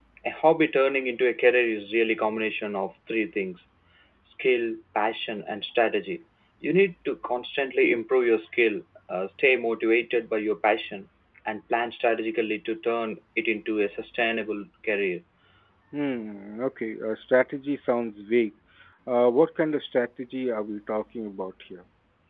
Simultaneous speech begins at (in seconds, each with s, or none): none